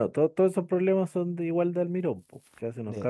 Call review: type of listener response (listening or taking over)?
taking over